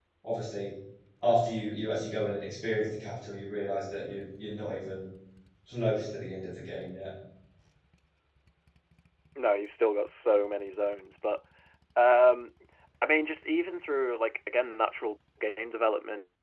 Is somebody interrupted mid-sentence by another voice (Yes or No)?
No